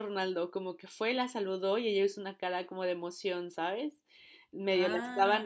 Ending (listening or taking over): listening